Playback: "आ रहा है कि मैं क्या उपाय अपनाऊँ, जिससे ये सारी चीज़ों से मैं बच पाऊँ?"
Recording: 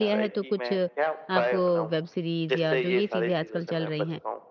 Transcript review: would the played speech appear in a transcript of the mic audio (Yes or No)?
Yes